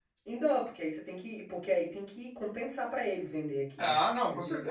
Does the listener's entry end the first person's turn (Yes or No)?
Yes